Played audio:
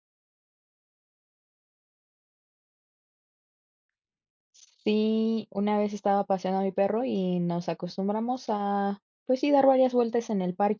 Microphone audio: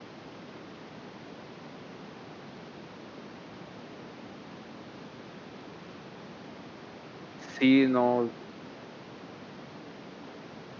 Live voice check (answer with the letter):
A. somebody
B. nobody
A